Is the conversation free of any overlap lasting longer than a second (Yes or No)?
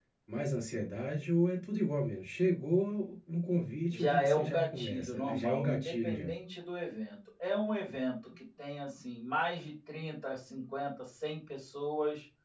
No